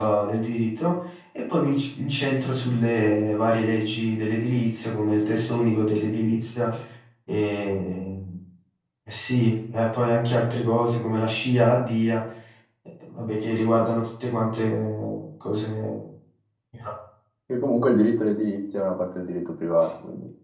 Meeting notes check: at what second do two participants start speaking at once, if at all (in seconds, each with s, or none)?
none